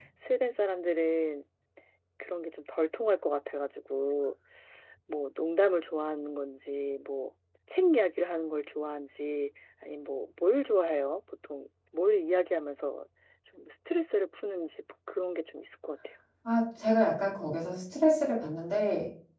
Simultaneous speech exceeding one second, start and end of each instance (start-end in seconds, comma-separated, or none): none